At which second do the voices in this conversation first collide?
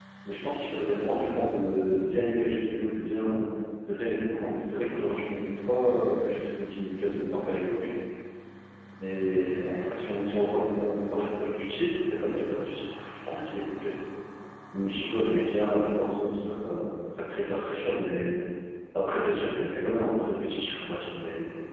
none

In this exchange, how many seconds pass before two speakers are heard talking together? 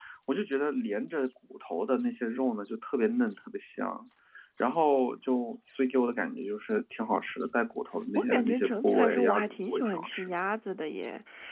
8 s

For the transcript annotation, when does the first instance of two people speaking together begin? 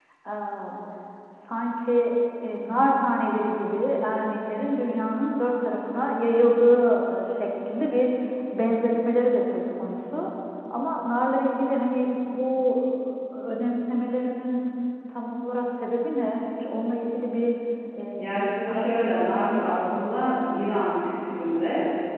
18 s

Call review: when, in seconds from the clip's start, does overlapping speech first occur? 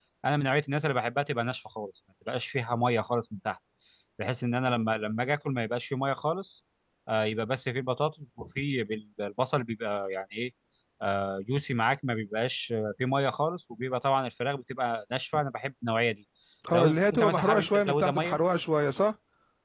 17 s

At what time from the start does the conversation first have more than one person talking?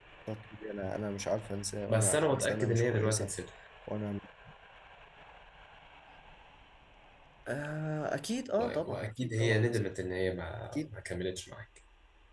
2 s

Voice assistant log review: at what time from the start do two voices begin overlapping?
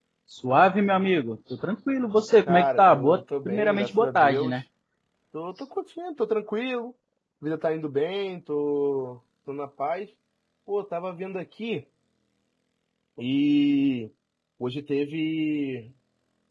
2 s

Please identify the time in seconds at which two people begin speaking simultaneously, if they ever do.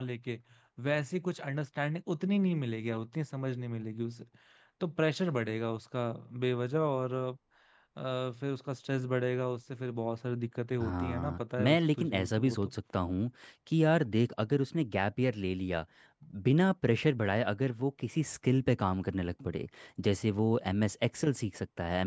11 s

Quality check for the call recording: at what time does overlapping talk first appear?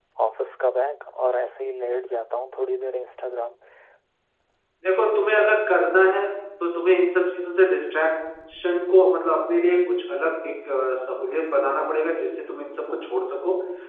none

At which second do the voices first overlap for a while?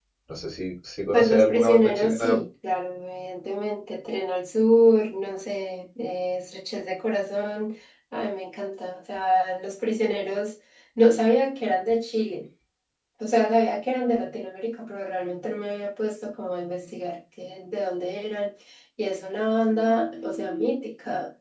1 s

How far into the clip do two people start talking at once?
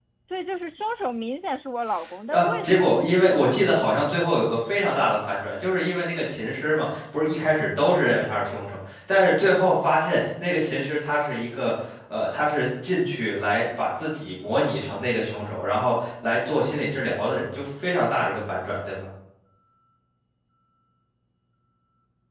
2 s

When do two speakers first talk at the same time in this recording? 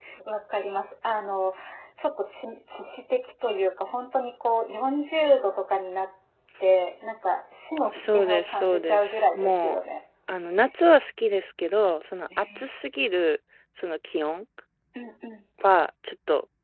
8 s

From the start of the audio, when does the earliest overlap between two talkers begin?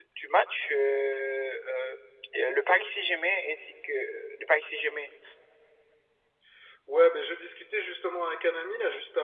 none

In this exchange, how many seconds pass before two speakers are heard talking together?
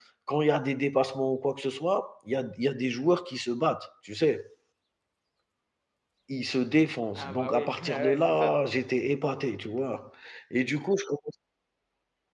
7 s

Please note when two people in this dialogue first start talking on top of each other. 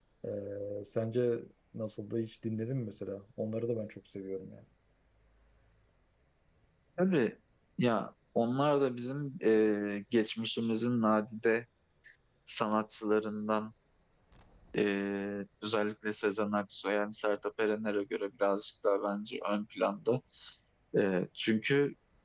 none

